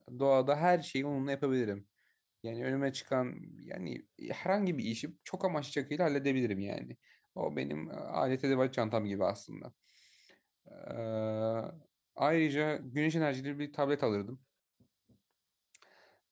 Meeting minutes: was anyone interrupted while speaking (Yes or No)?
No